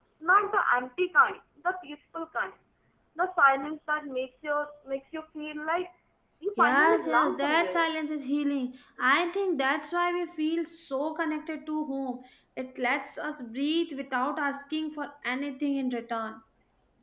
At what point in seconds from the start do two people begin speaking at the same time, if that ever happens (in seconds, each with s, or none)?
6.6 s